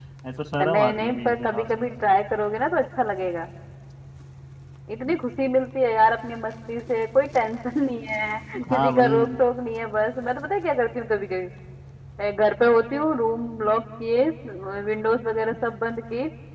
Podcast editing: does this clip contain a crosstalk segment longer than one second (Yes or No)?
Yes